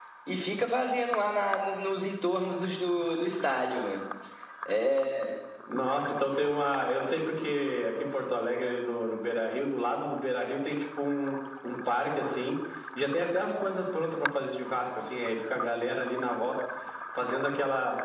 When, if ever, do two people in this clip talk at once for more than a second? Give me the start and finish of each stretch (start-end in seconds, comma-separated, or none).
none